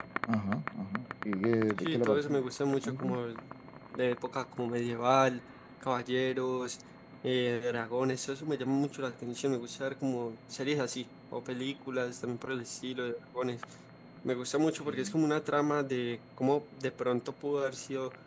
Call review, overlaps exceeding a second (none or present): present